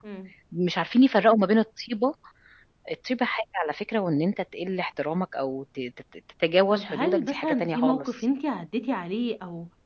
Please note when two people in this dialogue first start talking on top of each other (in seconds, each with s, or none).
6.7 s